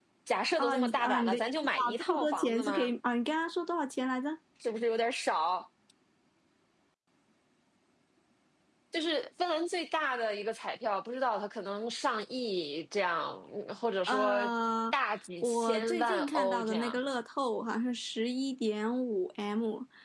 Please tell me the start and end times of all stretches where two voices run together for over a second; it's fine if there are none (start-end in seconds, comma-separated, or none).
0.6-2.9, 15.4-17.0